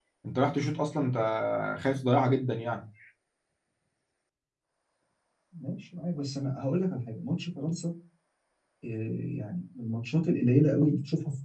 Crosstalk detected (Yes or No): No